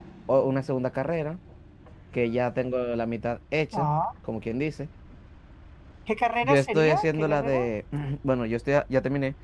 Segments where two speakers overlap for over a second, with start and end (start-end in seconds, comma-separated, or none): 6.4-7.7